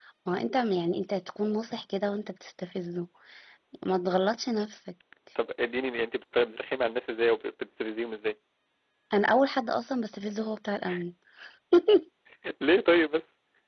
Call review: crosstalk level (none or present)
none